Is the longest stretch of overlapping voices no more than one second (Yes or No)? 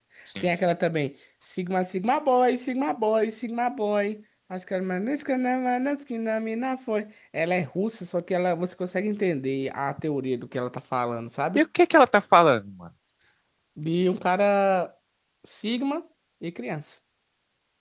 Yes